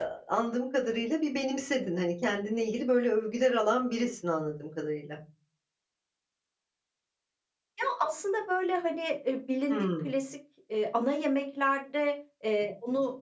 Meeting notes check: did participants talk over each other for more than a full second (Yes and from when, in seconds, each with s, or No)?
No